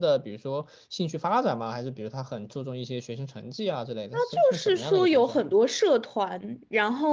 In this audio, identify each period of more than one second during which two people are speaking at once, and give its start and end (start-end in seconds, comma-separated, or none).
4.1-5.4